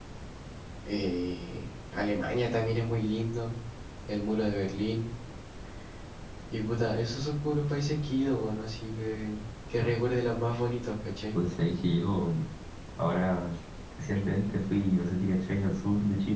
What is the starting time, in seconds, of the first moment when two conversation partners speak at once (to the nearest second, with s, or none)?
none